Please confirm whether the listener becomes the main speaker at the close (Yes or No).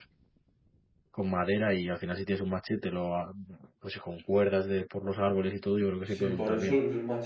Yes